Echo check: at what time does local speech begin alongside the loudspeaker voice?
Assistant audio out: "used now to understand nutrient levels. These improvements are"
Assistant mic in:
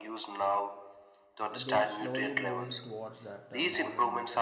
1.5 s

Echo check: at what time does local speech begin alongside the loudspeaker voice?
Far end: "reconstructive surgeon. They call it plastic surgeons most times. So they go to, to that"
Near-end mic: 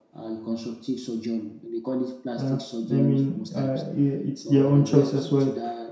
2.4 s

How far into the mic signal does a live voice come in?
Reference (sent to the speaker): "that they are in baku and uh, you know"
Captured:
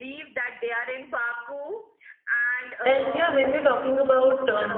2.8 s

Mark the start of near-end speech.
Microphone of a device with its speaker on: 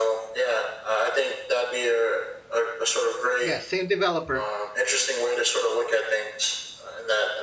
3.4 s

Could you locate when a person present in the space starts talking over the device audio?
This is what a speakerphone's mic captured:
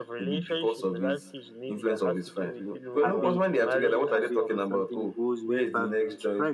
3.0 s

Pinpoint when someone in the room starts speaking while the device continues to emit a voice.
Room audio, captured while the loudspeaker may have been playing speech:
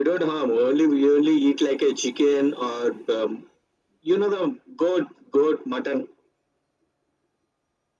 none

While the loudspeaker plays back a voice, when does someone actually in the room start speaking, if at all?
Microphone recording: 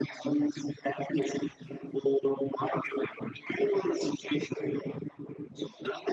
none

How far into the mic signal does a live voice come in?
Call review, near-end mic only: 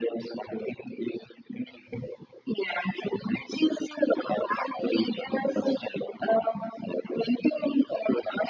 none

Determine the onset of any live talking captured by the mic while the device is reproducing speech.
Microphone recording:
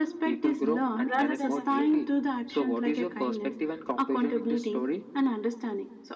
1.0 s

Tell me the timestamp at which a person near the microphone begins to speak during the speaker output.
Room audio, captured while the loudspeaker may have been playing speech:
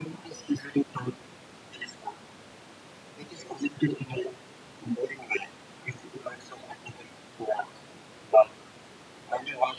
none

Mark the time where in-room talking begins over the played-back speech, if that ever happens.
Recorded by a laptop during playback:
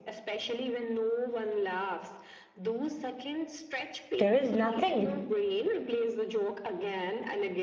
4.2 s

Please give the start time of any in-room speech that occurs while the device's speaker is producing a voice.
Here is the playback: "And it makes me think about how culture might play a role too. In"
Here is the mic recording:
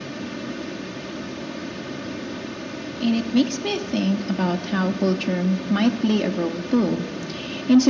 none

